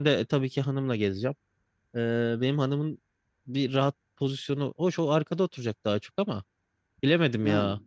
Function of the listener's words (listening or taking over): listening